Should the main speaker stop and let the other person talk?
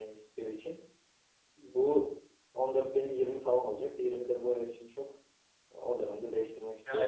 Yes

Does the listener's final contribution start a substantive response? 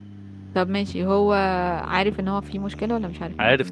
Yes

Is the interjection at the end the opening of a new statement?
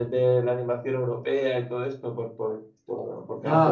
No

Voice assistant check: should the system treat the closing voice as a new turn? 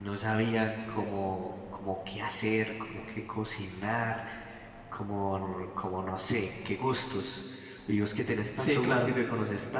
No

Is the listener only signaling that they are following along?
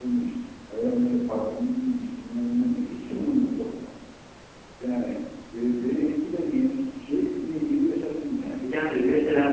No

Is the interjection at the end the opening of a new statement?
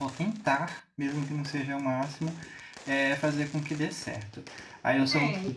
No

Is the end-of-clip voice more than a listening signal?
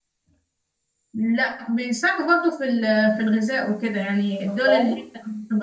No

